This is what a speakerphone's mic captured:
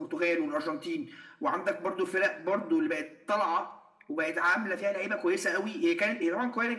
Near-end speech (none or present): none